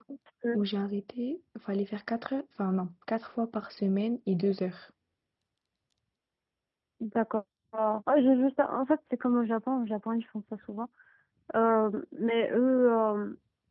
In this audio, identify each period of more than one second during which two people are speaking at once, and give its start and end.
none

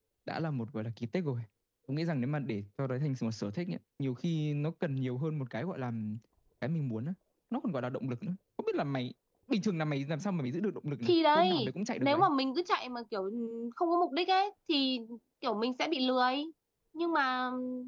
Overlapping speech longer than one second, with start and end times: 11.0-12.2

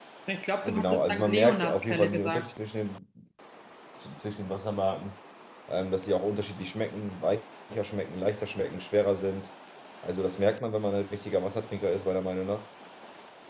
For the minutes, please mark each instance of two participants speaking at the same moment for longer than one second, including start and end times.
0.6-2.5

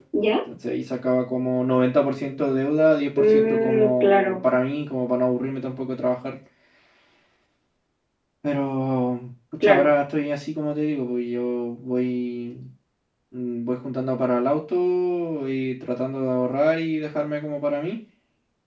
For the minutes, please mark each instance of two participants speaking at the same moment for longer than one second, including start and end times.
3.2-4.4

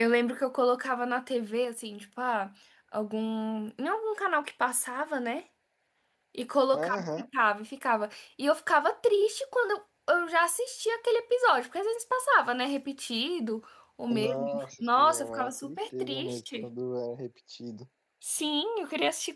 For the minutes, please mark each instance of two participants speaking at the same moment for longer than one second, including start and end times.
14.1-16.6

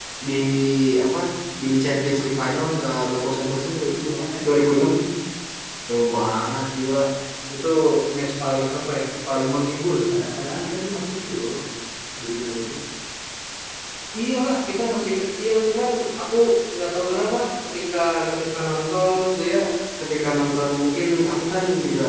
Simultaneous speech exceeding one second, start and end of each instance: none

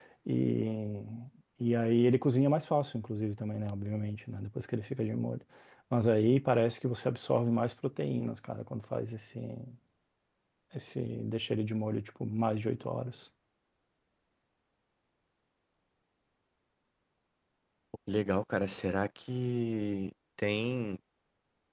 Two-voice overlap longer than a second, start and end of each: none

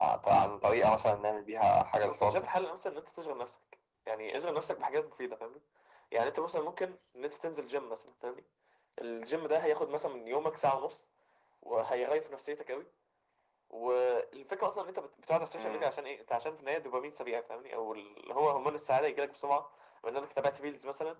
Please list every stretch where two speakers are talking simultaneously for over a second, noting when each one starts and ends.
none

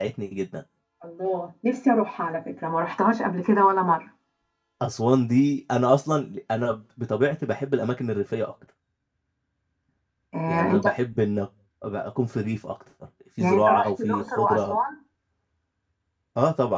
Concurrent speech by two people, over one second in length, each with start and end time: 13.4-14.8

